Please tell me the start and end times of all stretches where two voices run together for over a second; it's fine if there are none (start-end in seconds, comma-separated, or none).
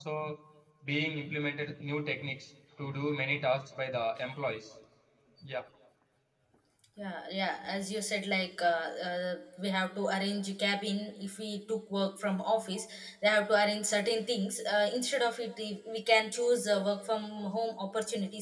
none